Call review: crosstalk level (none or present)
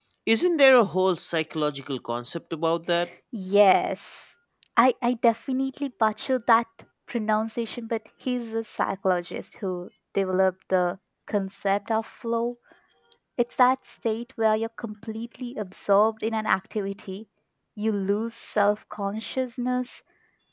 none